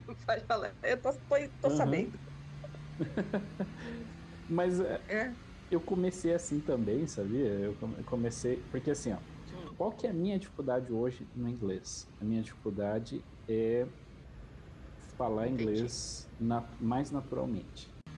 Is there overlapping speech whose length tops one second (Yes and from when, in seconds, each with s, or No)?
No